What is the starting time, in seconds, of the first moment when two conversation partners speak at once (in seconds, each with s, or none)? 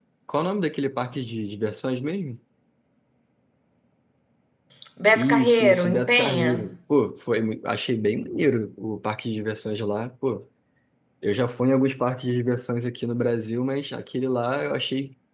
5.2 s